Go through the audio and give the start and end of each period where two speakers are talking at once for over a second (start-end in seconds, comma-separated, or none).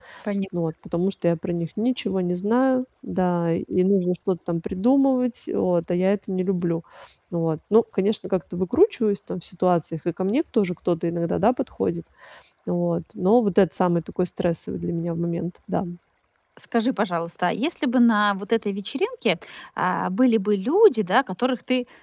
none